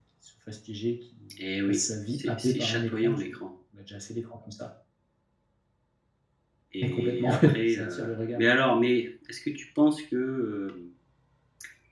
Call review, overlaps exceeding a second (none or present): present